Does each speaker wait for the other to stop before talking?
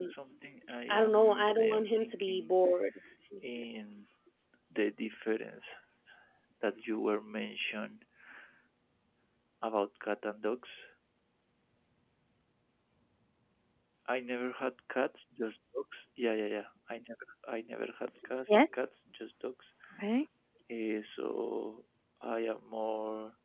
No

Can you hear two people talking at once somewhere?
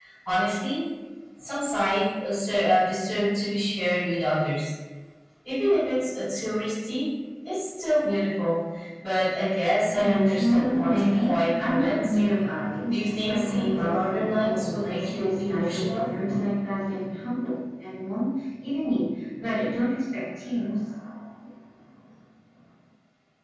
Yes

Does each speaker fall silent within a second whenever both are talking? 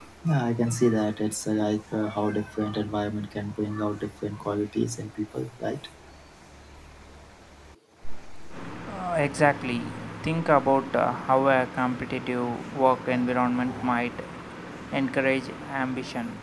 Yes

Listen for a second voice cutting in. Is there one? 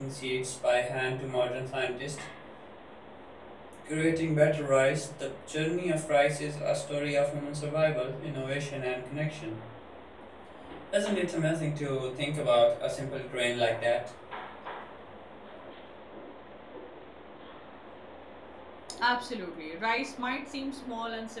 No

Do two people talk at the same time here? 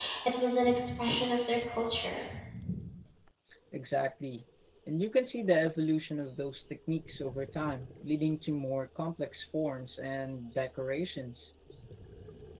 No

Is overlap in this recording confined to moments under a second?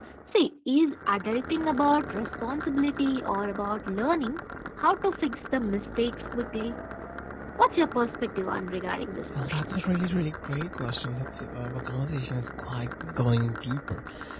Yes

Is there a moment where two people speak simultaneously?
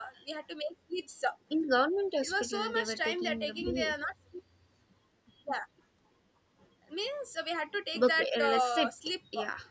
Yes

